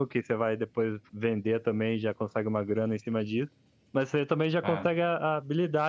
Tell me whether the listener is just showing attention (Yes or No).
Yes